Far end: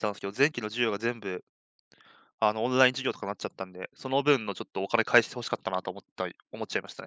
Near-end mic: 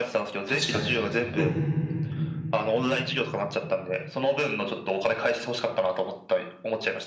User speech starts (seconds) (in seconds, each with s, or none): 0.5 s